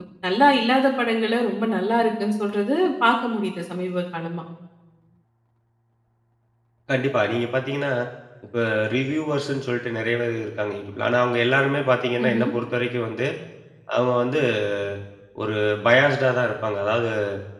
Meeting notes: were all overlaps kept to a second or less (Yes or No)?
Yes